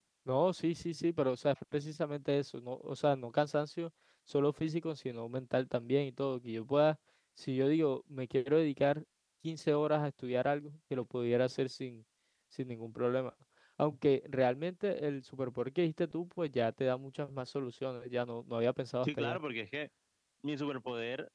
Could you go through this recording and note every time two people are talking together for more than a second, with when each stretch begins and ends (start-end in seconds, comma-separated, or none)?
none